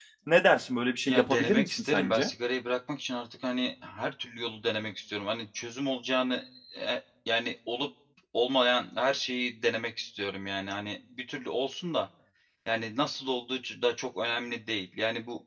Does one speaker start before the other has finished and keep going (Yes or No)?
Yes